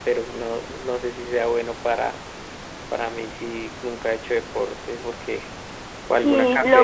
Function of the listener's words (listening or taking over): taking over